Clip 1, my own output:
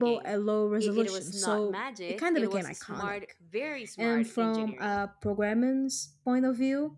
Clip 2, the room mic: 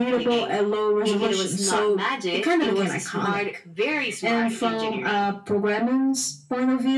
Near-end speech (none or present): none